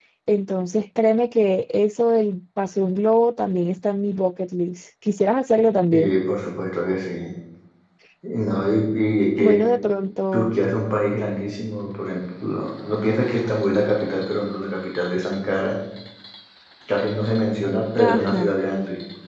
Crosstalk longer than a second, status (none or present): none